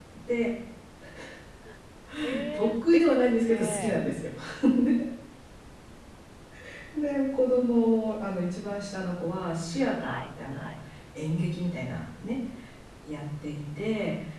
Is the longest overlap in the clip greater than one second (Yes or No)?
Yes